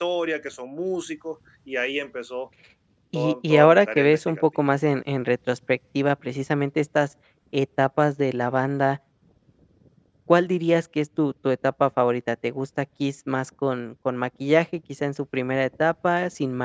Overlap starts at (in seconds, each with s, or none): 3.1 s